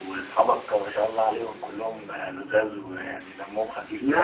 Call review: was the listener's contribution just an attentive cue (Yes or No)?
No